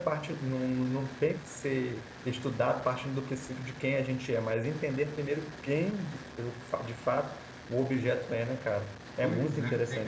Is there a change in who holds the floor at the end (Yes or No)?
Yes